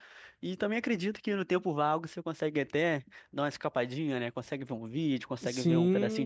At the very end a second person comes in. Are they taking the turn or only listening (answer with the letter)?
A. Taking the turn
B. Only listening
A